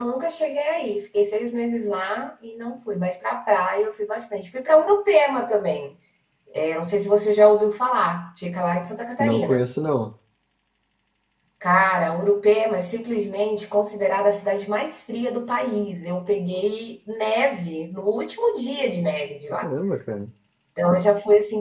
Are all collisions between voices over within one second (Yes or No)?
Yes